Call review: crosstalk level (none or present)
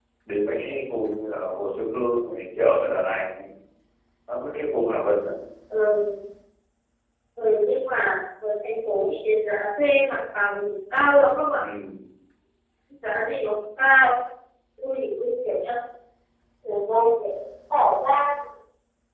none